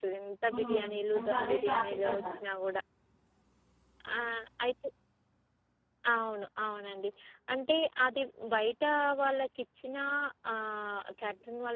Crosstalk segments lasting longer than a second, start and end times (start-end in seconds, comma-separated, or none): 0.5-2.4